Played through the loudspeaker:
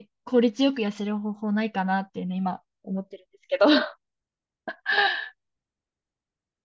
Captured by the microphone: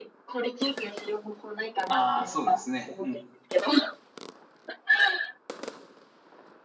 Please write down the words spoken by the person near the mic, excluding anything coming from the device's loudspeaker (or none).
ああ、そうですね。うん。